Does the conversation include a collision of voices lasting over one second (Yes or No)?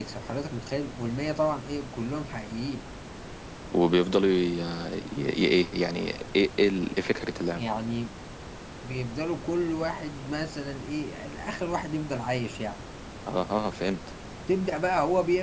No